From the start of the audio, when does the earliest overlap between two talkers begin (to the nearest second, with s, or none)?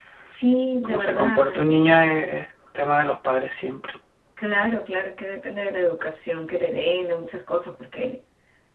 1 s